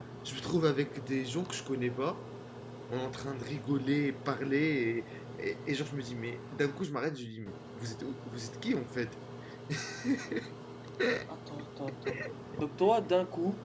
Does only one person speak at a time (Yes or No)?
Yes